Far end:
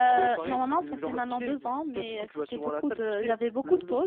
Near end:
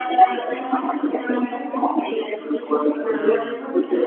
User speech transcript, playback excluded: Hmm.

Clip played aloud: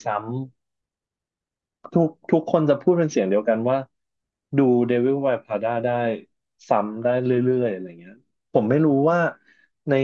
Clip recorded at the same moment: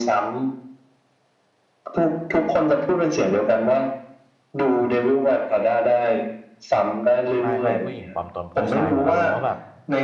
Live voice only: ไม่ไม่ผู้หญิงปลอมตนผู้ชายเหมือนอารมณ์ว่าแบบ

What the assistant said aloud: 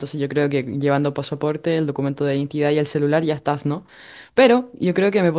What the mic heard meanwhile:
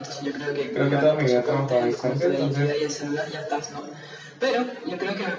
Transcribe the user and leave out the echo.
Creo que toda mi vida he trabajado a distancia, entonces,

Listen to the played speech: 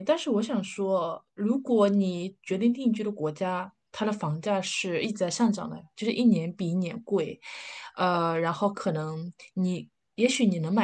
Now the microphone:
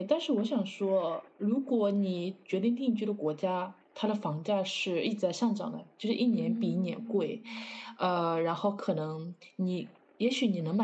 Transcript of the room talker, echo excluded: 嗯

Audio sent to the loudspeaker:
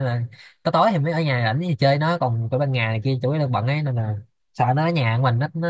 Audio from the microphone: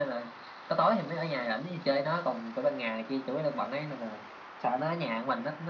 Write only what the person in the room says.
none

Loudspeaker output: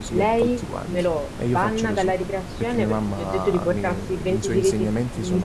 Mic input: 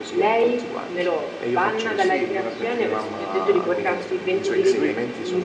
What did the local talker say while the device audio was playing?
Sì, gliel'abbiamo chiesto, gliel'abbiamo chiesto il motivo. E lui.

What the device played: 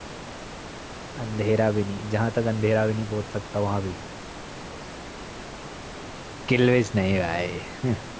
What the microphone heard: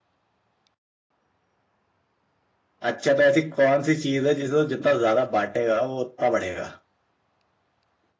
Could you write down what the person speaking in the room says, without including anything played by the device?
अच्छा तो ऐसी कौन सी चीज है जिसे जितना ज्यादा बांटेगा वो उतना बढ़ेगा

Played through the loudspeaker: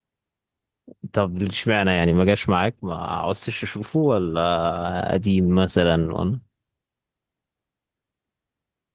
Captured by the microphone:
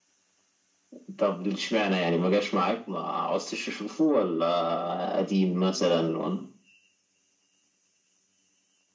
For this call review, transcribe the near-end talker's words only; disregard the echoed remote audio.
none

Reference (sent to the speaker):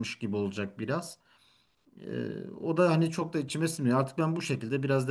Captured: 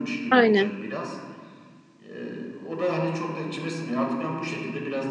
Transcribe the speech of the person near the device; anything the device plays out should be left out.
Aynen.

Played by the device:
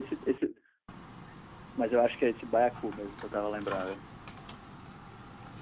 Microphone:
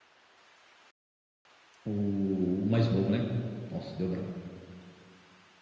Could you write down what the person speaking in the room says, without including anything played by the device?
o mais novo, né? Nossa, deu branco.

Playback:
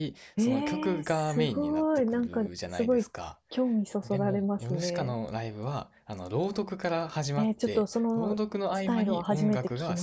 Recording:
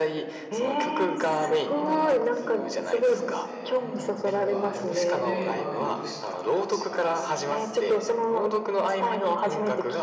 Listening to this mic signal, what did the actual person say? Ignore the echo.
僕は、その、そうですね。音楽聴くアーティストで言えば、ヨルシカが一番好きですね。

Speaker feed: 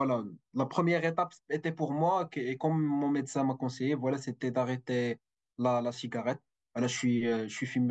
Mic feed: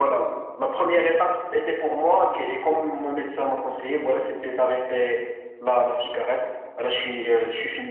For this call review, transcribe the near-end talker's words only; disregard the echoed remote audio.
none

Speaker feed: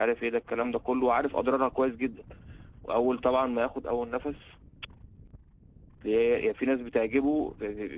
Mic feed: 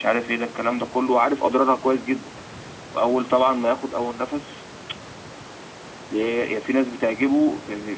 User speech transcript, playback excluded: none

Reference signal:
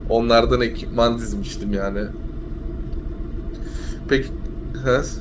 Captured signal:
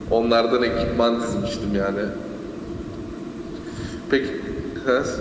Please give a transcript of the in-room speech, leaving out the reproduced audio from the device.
none

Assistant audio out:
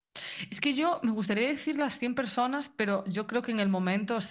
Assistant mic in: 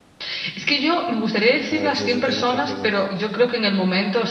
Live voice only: a ver, yo, yo te hago otra pregunta.

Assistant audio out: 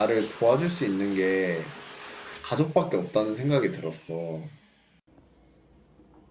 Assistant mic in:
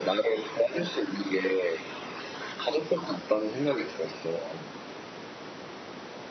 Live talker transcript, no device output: none

